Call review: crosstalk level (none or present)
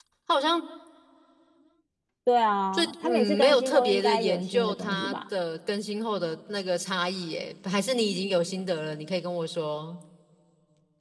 present